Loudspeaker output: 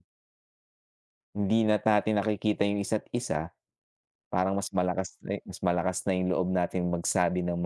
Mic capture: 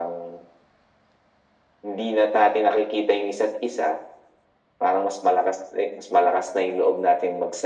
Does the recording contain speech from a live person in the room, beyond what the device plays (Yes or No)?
No